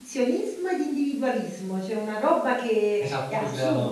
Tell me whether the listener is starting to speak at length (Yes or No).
Yes